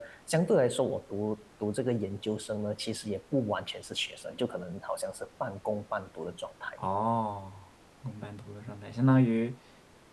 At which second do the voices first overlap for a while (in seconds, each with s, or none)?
none